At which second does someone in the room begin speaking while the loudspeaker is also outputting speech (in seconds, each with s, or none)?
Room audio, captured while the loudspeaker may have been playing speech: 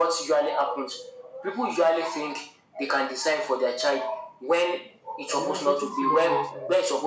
5.3 s